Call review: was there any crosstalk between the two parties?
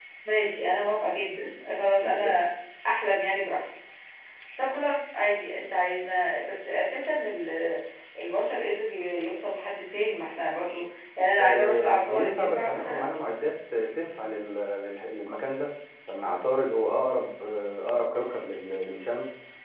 Yes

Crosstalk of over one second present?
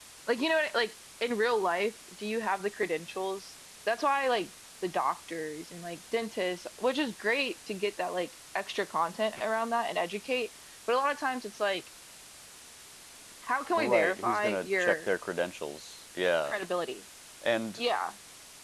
Yes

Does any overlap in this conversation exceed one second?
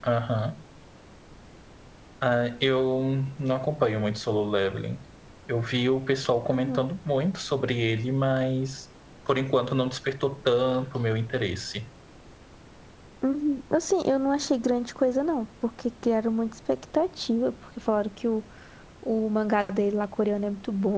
No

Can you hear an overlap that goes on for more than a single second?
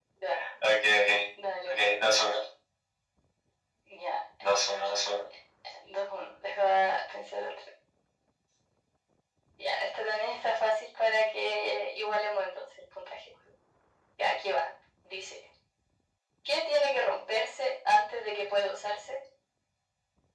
No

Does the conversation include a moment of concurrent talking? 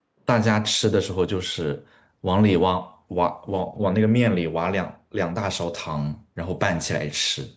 No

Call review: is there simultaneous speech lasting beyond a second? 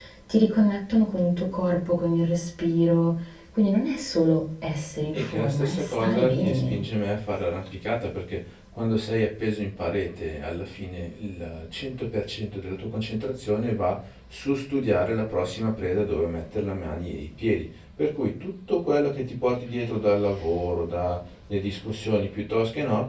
Yes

